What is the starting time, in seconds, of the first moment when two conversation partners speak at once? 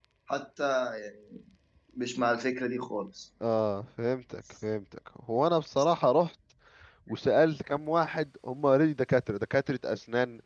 none

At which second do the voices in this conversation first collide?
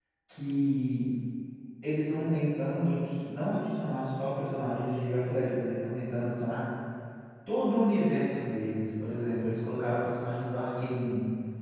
none

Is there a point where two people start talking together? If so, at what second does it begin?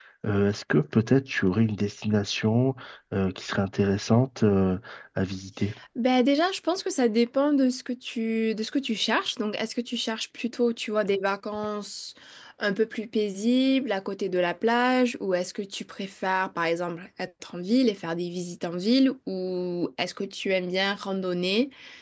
none

